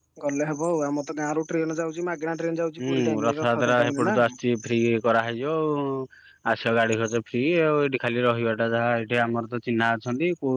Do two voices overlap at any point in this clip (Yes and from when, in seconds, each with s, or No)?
Yes, from 2.8 s